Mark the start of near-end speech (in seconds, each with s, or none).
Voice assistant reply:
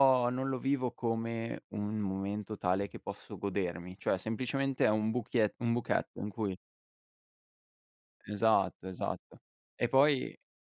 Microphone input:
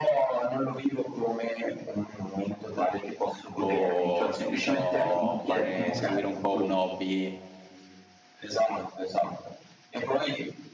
3.6 s